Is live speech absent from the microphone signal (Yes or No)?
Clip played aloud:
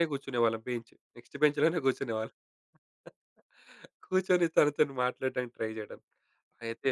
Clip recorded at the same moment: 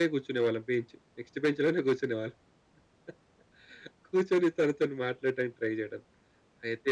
Yes